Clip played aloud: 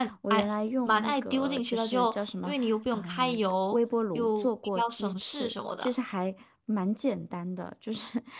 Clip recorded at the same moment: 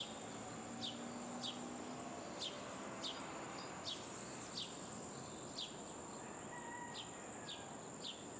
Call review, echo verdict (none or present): none